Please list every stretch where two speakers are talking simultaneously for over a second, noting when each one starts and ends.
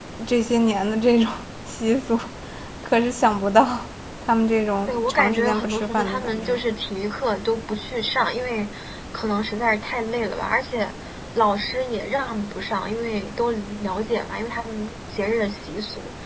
4.8-6.6

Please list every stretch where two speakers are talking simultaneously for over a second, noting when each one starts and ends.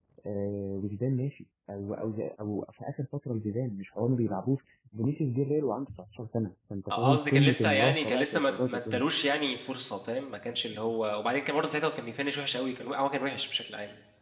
6.9-9.0

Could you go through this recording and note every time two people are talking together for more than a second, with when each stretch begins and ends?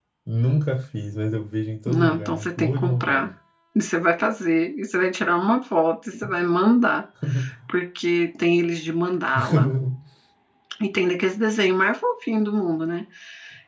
1.9-3.3

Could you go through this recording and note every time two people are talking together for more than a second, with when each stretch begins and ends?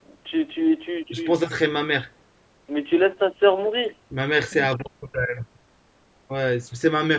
none

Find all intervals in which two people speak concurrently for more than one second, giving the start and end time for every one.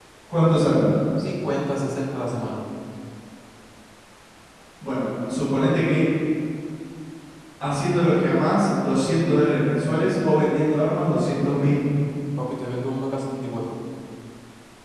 none

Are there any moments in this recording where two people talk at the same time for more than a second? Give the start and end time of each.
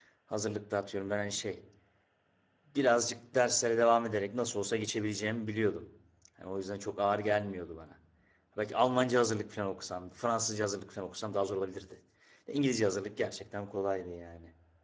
none

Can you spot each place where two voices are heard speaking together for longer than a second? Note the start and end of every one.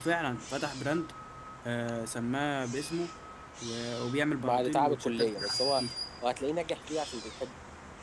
4.4-5.8

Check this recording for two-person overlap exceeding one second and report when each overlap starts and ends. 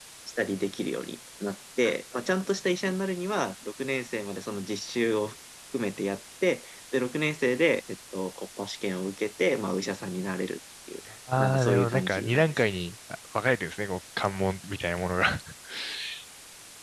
11.4-12.6

